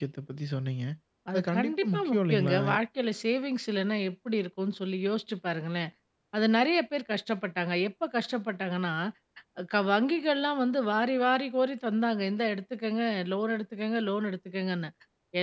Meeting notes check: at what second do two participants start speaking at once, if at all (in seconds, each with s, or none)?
1.3 s